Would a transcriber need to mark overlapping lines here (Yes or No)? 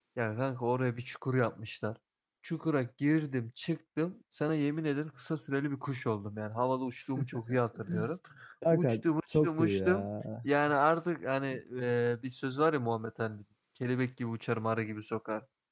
Yes